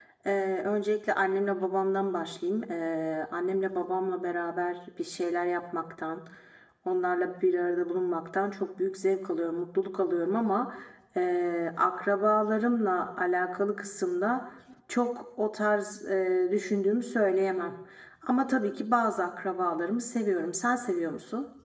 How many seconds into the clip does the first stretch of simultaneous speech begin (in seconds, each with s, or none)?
none